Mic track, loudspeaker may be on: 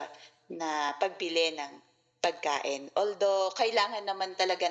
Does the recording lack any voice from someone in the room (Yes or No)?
Yes